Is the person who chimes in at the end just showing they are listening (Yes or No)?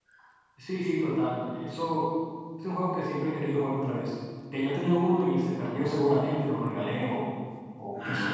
No